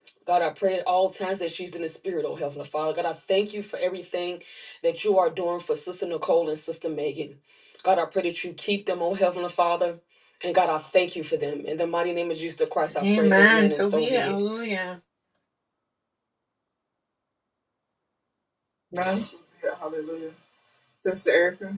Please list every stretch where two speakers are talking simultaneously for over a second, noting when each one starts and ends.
13.0-14.4

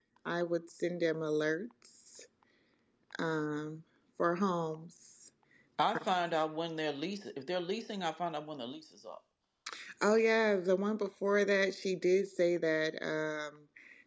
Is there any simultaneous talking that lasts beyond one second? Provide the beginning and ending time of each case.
none

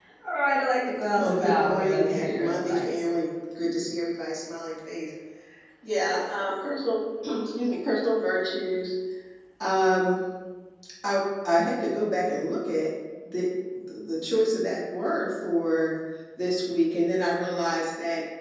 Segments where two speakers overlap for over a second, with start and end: 1.1-2.9

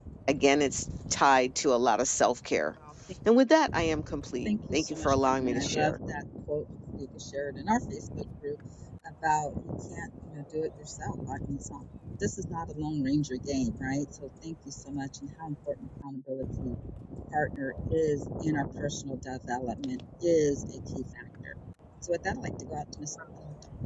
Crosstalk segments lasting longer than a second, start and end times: 4.4-5.9

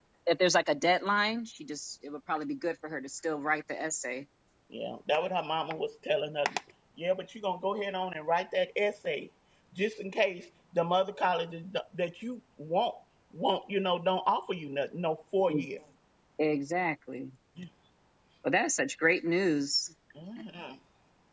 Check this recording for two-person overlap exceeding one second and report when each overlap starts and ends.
none

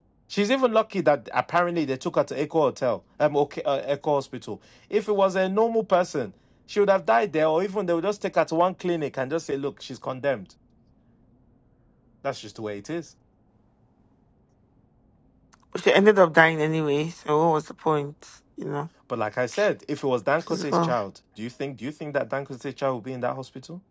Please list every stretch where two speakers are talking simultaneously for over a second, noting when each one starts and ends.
none

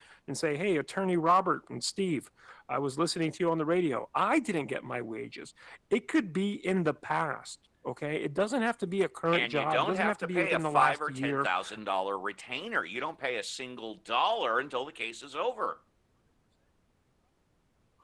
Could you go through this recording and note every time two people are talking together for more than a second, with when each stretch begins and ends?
9.3-11.5

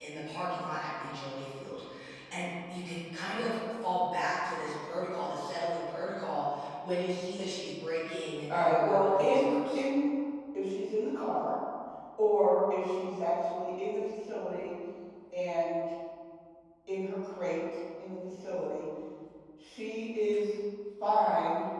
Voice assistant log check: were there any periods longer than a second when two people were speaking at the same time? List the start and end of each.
8.5-9.8

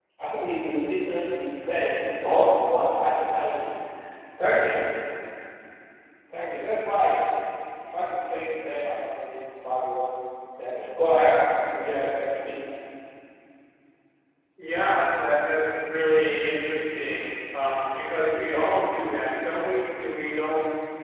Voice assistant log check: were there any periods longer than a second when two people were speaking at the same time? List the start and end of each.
none

